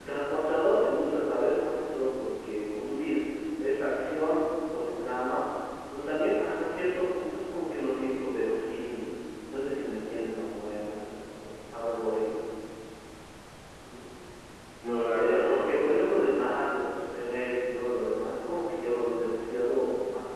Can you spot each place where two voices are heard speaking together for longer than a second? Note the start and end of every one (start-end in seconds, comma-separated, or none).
15.1-16.3